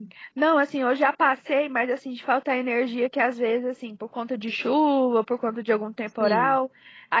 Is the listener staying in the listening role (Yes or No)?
Yes